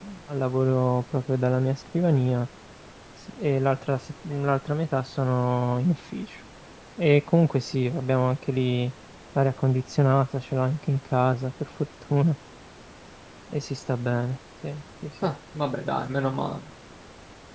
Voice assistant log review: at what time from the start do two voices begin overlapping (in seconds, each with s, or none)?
none